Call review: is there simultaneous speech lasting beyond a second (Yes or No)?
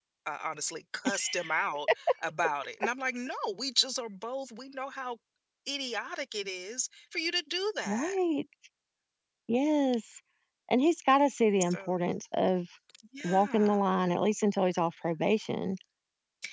No